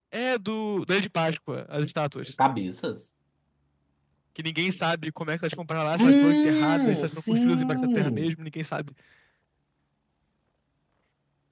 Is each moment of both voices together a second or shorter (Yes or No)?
No